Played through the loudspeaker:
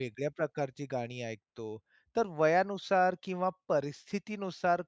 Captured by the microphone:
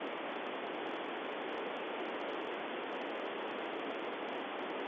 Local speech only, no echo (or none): none